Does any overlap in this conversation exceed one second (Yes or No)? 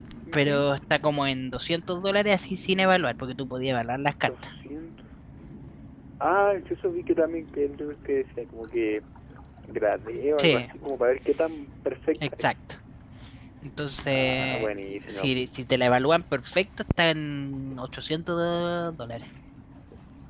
No